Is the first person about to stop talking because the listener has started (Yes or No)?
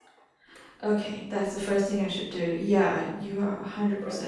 Yes